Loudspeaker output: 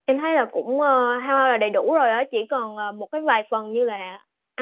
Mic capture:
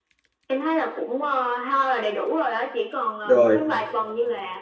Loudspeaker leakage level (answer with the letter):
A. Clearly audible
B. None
A